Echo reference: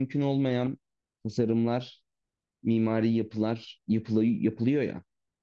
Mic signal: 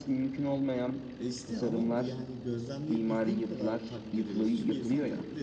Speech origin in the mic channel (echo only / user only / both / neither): both